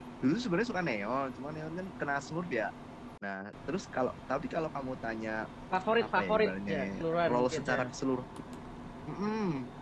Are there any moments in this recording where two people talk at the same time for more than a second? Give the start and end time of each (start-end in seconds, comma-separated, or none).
6.0-7.8